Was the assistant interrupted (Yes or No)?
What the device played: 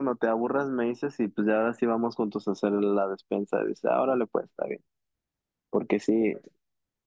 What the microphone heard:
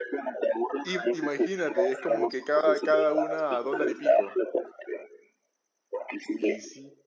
Yes